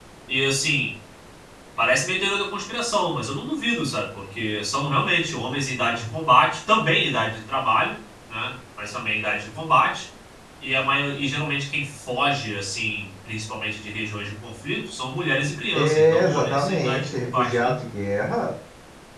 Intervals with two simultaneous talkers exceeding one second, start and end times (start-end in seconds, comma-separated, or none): 15.8-17.8